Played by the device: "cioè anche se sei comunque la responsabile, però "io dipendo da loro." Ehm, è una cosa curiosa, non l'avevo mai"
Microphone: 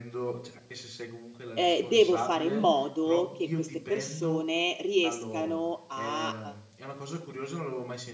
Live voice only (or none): ehm, devo fare in modo che queste persone riescano a,